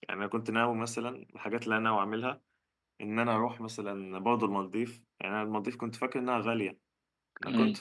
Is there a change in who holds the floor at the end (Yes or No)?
No